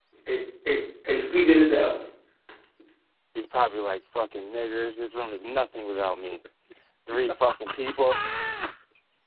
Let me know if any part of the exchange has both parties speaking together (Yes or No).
No